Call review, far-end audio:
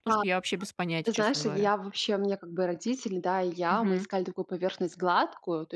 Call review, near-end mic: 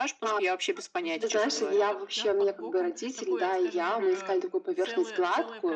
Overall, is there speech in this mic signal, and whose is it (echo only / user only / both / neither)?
both